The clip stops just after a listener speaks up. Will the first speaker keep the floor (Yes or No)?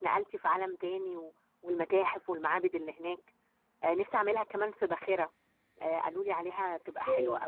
No